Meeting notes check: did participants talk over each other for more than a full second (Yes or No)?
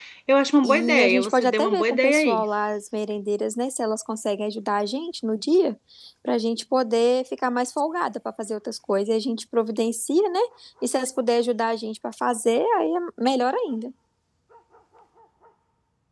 Yes